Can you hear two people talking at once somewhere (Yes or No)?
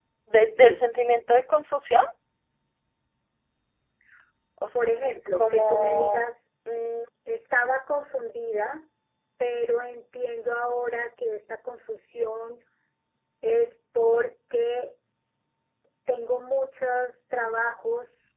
Yes